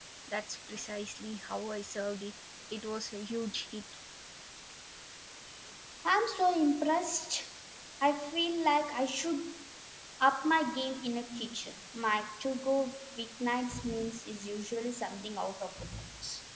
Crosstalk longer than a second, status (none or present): none